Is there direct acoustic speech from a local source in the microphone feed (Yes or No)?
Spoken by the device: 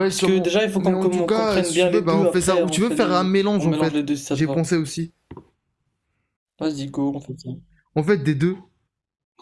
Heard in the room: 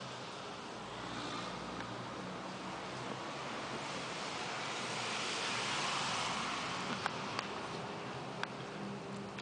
No